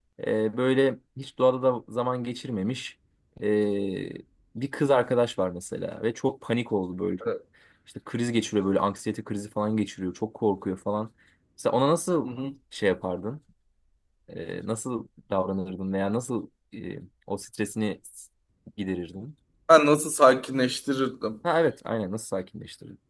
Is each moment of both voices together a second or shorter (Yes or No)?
Yes